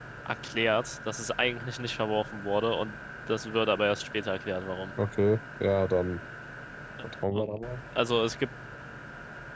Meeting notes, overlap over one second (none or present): none